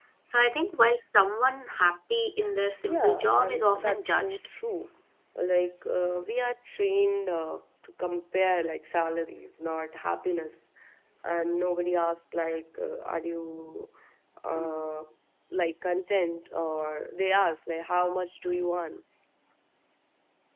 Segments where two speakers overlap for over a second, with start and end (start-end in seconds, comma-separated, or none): 2.9-4.4